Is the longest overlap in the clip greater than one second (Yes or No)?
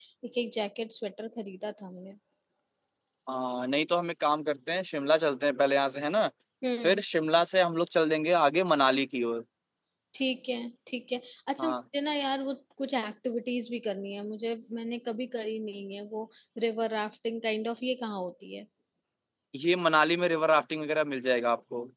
No